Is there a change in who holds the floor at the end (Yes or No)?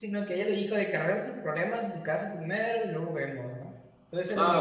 No